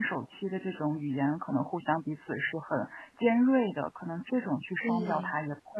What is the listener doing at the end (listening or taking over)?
listening